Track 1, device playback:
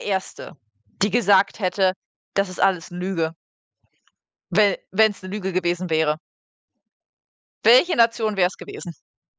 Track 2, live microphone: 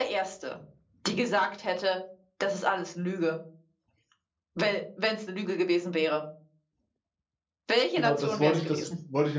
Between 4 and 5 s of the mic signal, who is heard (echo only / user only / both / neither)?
echo only